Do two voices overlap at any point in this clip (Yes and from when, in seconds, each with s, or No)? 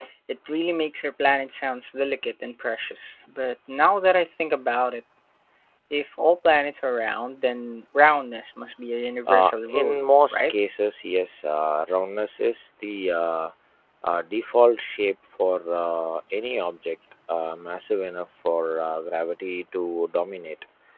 Yes, from 9.3 s